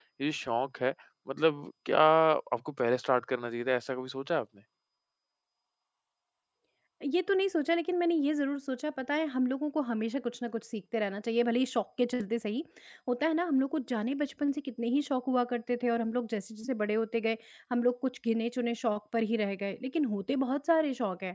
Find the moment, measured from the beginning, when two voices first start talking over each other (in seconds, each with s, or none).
none